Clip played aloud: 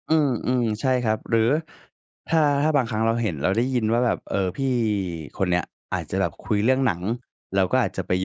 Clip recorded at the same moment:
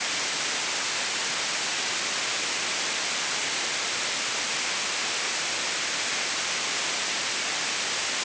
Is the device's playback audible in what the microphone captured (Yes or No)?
No